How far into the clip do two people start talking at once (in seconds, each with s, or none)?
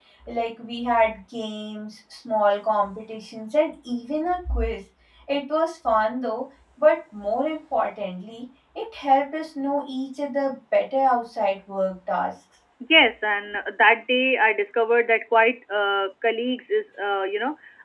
none